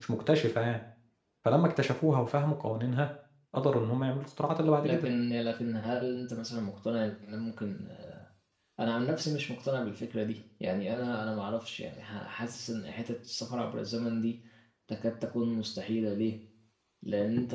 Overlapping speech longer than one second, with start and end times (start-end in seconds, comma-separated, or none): none